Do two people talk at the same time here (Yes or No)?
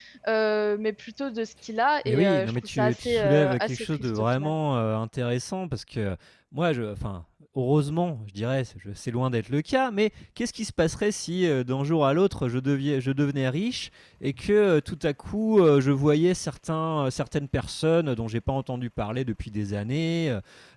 Yes